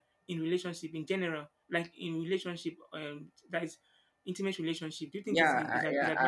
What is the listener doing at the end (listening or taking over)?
taking over